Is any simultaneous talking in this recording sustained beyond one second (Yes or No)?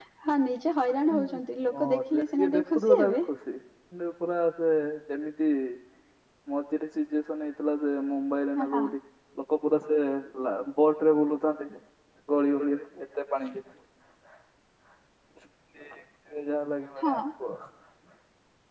Yes